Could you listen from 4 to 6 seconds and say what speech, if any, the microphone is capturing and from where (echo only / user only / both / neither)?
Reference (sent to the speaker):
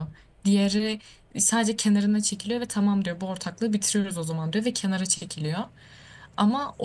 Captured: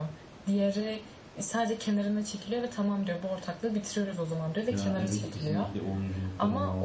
both